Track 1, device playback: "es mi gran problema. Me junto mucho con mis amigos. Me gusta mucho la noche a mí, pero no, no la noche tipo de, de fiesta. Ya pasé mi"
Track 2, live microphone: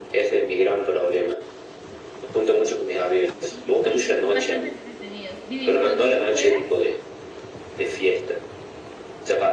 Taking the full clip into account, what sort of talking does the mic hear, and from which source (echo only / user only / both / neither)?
both